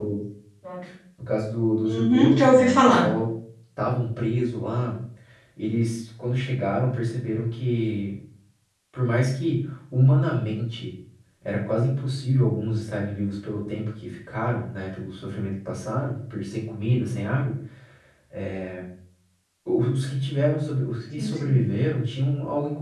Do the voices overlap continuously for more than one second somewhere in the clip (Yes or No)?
Yes